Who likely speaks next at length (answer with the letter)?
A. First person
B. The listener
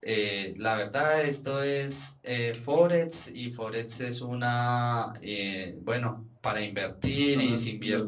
A